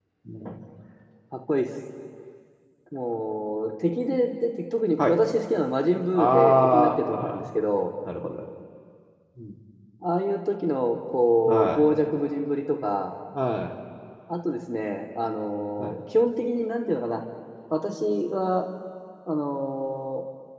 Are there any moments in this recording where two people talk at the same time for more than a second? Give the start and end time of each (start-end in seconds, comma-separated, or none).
6.1-7.3